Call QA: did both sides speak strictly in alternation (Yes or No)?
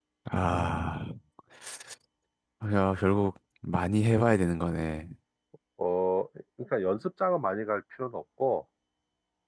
Yes